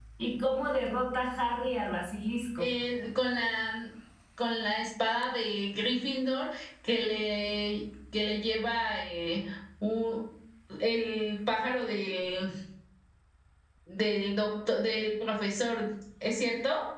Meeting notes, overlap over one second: none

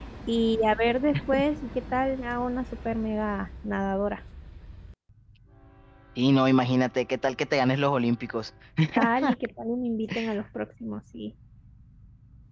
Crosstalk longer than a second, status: none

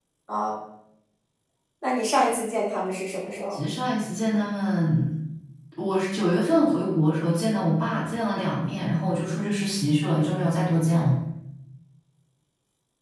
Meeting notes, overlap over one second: none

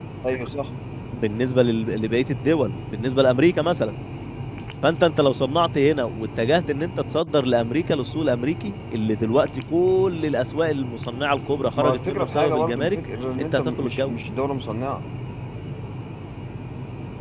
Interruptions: present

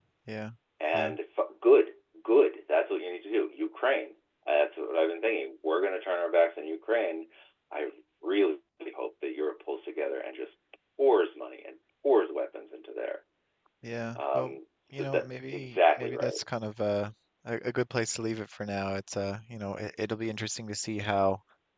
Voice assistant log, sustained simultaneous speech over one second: present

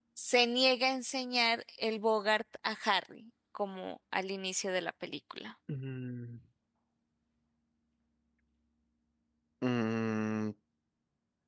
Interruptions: none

